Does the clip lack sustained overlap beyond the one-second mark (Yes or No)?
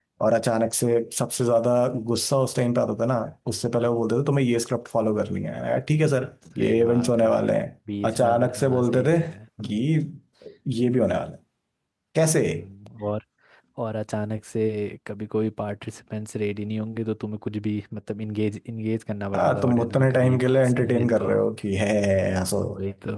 No